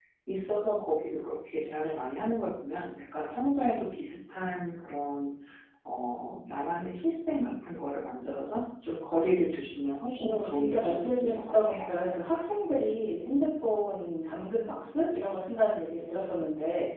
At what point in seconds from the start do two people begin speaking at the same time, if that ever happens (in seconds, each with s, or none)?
10.2 s